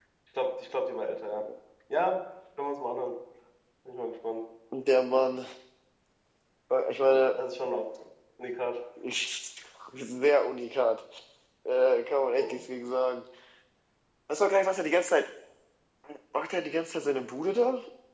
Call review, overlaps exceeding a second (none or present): none